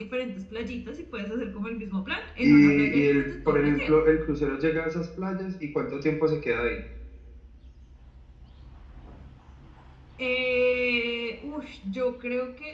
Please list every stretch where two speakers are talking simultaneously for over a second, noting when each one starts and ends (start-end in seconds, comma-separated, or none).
2.4-4.0